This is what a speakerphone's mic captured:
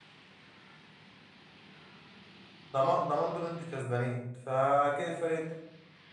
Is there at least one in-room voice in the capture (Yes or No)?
Yes